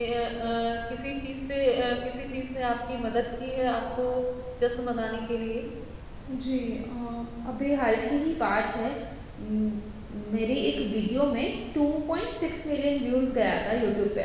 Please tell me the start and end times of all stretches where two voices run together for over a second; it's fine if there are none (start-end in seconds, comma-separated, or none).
none